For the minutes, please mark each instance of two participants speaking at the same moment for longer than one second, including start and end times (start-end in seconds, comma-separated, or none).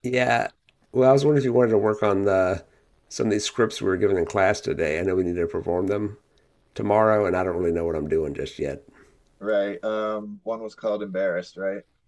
none